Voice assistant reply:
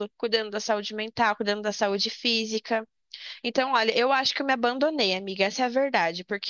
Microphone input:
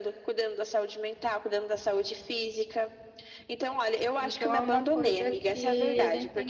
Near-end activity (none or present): present